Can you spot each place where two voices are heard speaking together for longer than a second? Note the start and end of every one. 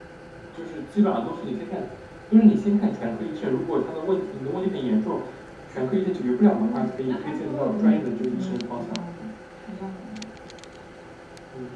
6.4-9.0

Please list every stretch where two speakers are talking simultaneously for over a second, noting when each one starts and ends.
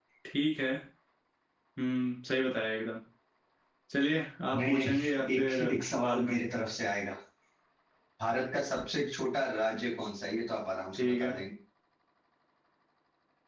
4.6-6.3

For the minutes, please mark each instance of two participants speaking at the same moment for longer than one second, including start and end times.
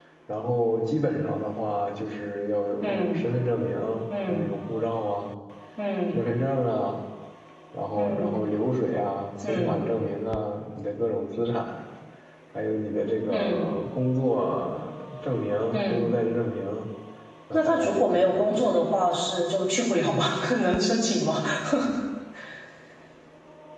17.5-18.7

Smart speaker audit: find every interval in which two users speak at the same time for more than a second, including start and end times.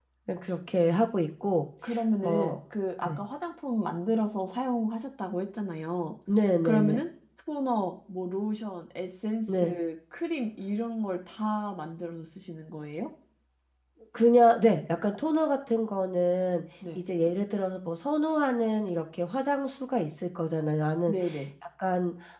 none

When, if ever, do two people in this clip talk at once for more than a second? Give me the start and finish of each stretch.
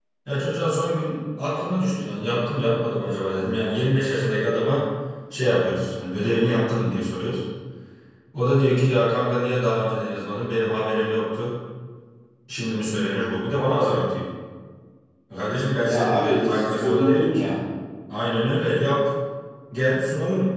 15.8-17.6

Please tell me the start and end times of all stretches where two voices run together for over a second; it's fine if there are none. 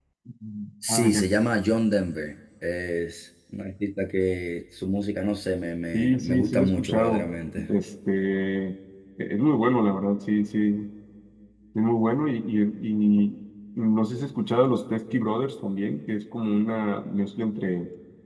5.9-7.3

